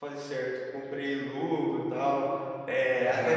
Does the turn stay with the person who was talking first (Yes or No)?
Yes